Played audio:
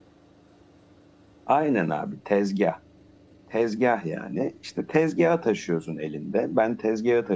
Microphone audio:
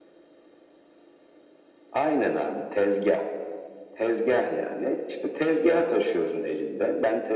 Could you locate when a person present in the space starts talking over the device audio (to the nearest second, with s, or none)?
none